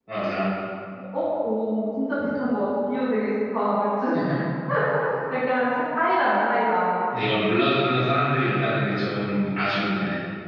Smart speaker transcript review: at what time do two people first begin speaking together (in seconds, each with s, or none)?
none